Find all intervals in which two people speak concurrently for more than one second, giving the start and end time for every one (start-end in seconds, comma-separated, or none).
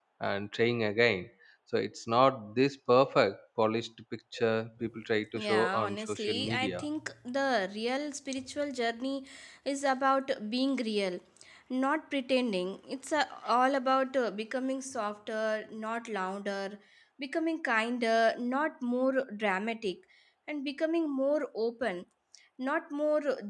5.3-6.8